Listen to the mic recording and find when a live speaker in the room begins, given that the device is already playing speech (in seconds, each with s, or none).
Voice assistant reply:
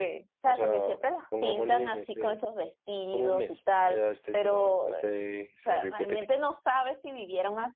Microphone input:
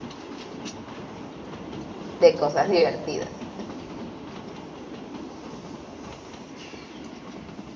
2.2 s